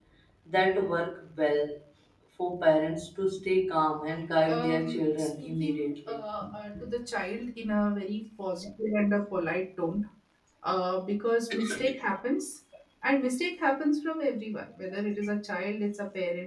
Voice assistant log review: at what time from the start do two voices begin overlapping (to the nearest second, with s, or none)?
4 s